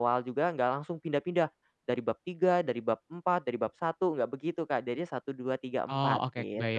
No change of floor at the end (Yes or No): No